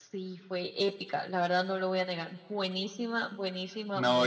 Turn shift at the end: Yes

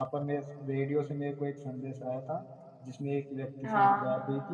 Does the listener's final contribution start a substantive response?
No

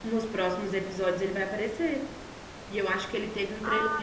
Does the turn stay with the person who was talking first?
Yes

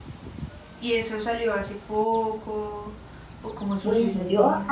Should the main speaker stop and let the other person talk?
Yes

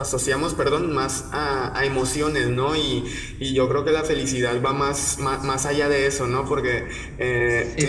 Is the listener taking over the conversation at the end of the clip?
No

